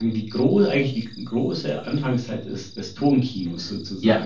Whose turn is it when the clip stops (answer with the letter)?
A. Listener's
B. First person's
A